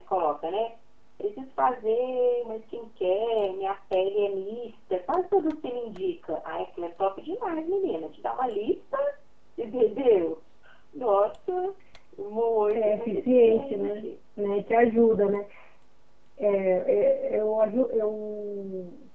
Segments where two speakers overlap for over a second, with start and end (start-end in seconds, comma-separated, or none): 12.8-14.1